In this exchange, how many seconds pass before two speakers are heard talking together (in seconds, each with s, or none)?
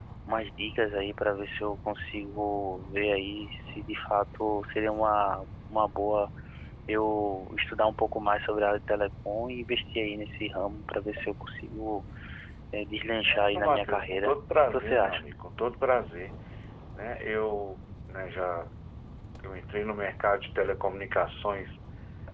13.3 s